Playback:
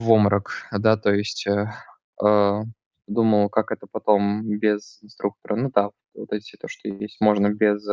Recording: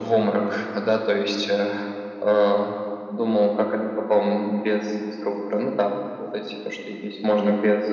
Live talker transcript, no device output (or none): none